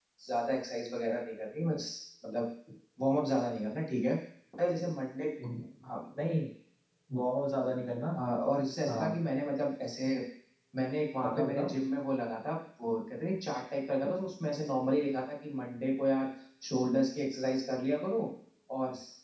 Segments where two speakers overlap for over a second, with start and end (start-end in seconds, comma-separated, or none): none